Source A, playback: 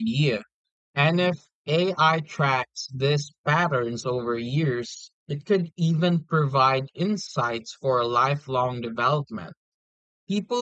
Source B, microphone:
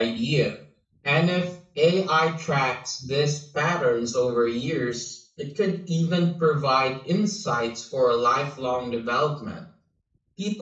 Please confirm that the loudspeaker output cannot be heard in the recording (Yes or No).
No